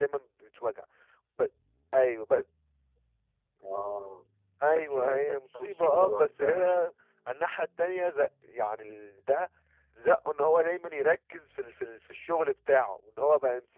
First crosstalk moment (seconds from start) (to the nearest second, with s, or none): 5 s